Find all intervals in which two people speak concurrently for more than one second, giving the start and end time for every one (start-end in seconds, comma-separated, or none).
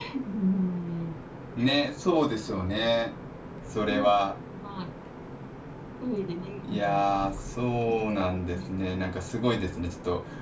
none